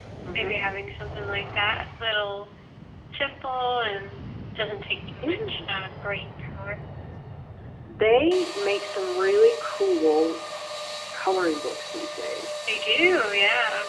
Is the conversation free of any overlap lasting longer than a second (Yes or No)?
Yes